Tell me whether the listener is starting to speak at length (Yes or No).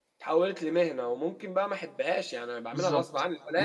Yes